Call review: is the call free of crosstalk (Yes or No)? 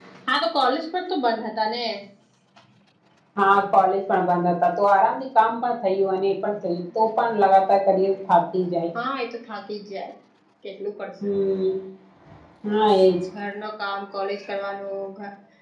Yes